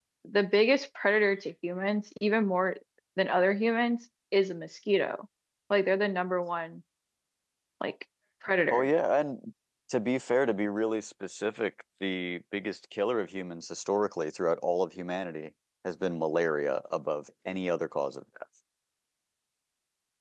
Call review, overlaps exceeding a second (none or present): none